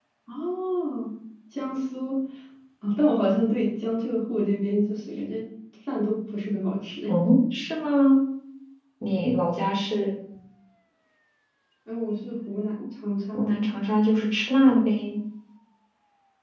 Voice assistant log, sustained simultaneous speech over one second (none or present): none